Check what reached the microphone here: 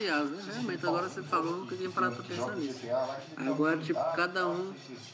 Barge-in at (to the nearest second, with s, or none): 0 s